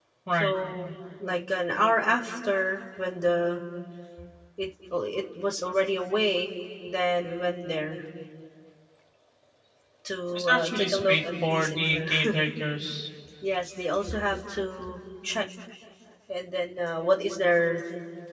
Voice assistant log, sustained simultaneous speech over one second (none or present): present